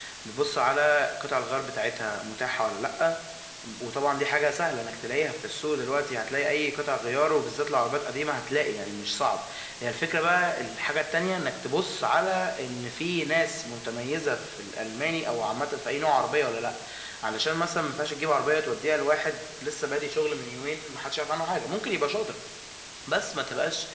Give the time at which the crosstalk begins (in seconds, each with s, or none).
none